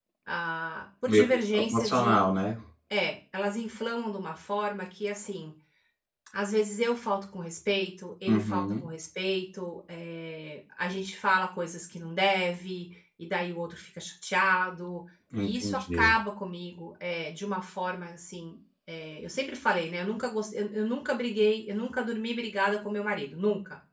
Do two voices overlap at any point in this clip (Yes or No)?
Yes